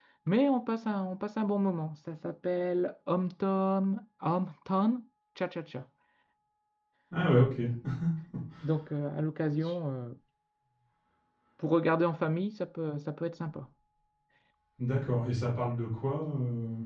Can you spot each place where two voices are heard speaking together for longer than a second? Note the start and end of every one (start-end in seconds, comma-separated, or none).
none